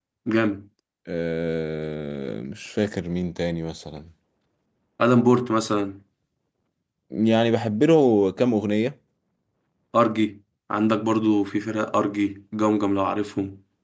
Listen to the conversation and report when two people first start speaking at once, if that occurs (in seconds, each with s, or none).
none